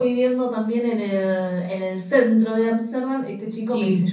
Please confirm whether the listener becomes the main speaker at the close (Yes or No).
No